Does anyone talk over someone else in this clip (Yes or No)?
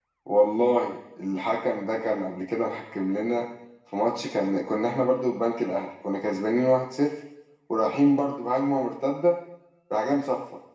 No